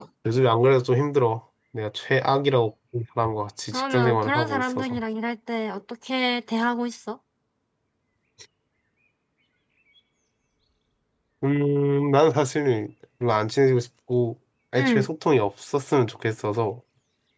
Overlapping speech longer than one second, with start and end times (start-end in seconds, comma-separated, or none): 3.7-5.0